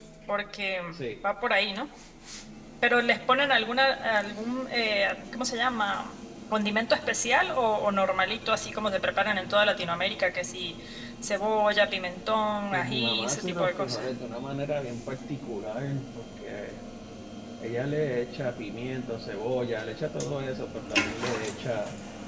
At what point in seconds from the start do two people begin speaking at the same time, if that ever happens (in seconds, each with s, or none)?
12.7 s